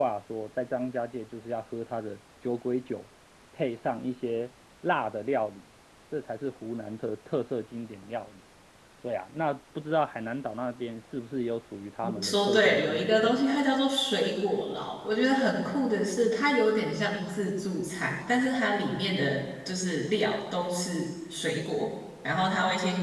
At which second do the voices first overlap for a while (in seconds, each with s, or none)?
12.0 s